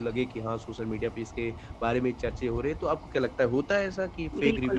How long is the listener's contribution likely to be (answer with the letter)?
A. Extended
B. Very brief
A